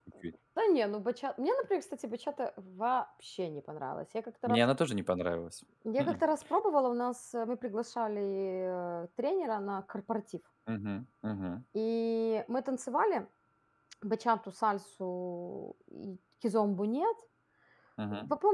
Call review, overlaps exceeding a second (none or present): none